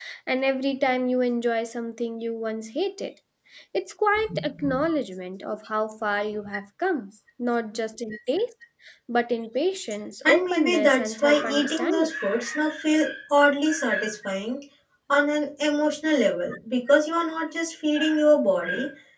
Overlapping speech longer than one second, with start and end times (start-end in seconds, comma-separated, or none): 10.2-12.1